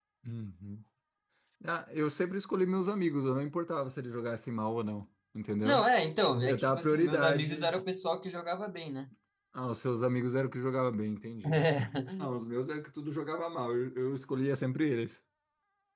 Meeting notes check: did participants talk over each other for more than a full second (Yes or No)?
Yes